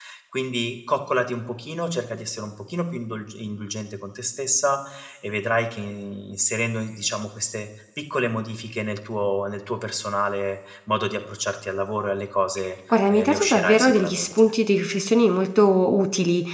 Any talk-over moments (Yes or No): Yes